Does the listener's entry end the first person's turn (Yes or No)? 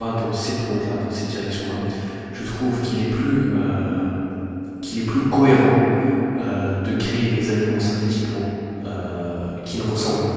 No